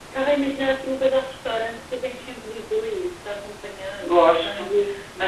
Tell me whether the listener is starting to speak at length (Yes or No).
Yes